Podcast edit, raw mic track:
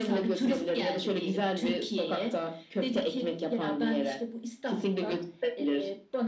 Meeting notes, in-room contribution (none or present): none